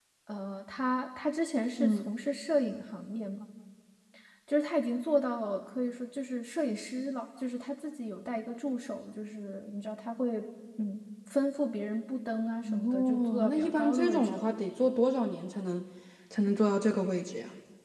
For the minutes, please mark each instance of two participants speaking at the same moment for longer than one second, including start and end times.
12.7-14.4

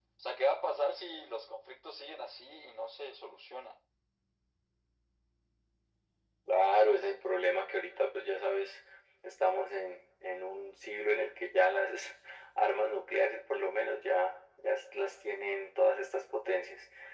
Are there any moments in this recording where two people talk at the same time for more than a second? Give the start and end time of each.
none

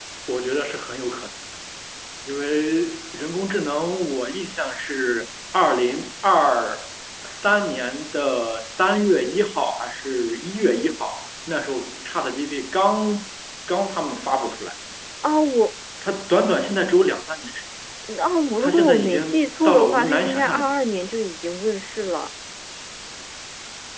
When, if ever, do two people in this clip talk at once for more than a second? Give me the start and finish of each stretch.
18.6-20.7

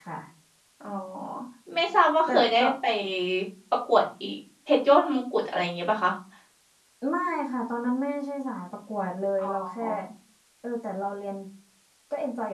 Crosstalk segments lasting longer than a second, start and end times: none

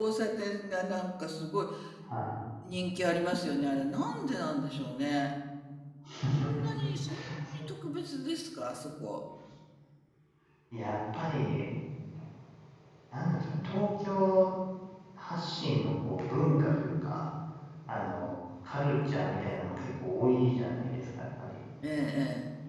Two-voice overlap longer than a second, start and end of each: none

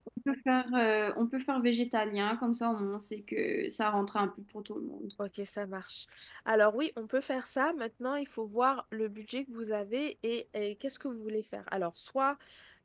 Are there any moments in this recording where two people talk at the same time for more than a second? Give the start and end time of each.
none

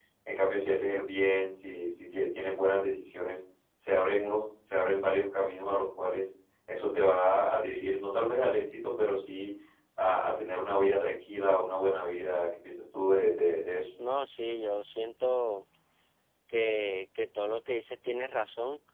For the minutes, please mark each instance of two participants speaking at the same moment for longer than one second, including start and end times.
none

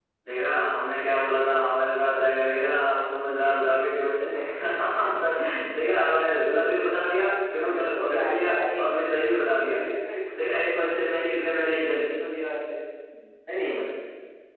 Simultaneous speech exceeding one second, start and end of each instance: 7.6-8.9

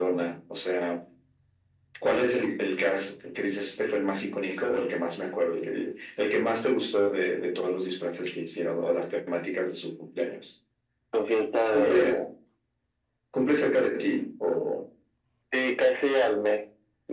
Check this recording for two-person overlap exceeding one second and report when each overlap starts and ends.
none

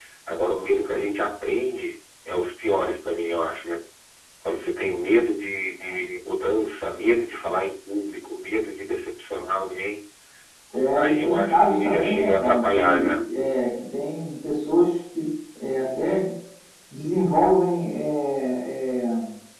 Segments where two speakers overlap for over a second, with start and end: 10.9-13.2

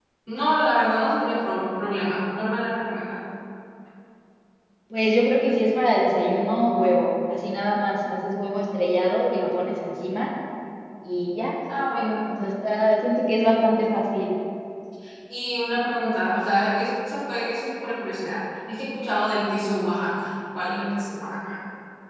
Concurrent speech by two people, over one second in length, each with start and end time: none

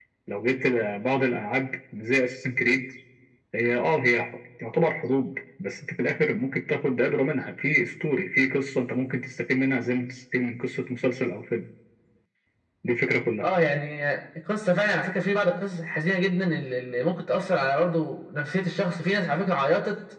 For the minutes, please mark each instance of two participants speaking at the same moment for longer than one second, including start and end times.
none

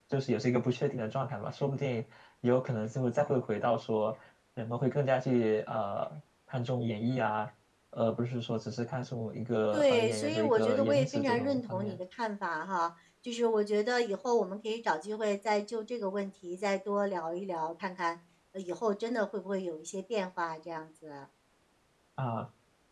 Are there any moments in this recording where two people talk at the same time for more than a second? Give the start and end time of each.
9.7-12.0

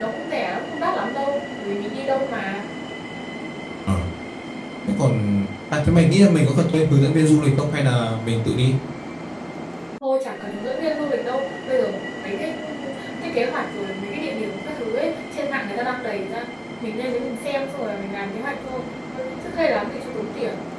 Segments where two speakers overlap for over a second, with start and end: none

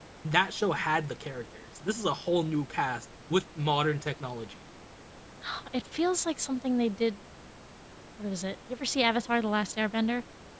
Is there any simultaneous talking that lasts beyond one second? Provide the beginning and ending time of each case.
none

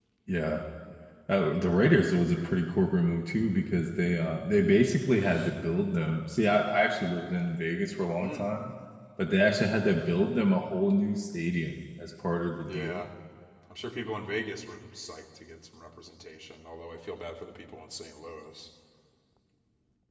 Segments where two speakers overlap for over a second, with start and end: none

